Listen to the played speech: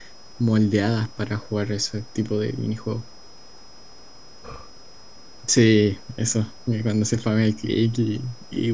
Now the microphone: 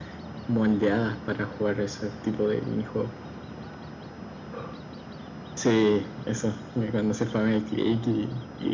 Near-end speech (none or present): none